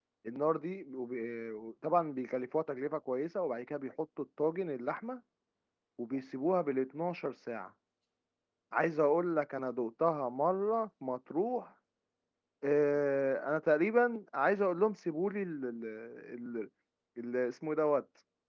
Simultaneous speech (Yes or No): No